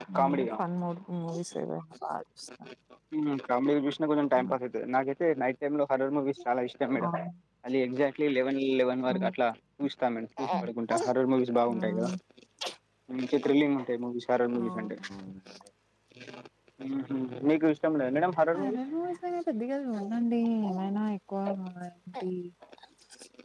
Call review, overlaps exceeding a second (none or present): none